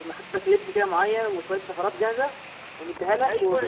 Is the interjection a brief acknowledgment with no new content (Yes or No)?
No